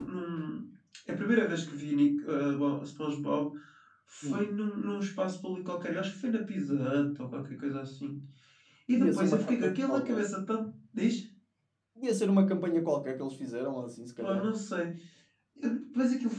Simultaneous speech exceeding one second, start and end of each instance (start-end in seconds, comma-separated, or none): 9.0-10.2